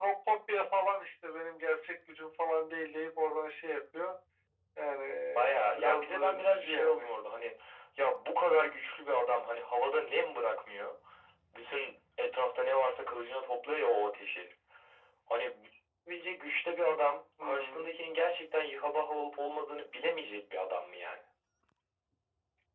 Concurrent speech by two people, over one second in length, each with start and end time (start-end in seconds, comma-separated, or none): 5.3-7.0